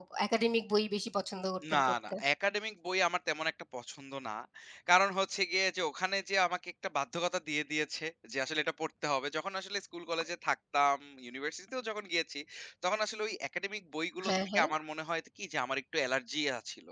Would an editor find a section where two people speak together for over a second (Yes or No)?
No